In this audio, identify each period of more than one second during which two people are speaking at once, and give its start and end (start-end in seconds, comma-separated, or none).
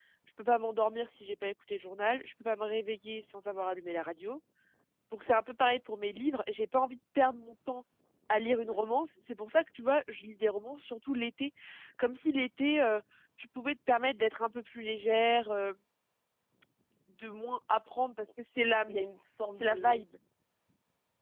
none